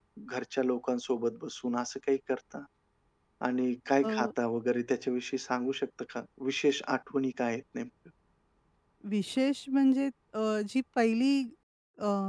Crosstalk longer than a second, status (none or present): none